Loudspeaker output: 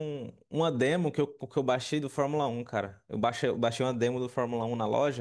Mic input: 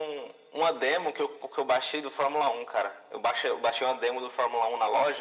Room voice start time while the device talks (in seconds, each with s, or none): none